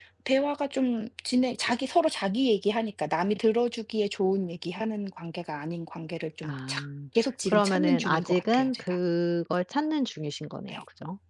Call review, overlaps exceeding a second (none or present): present